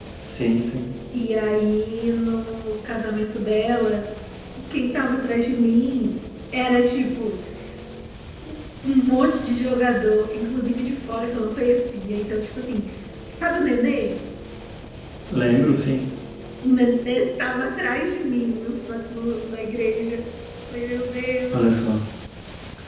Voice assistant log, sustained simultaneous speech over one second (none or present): none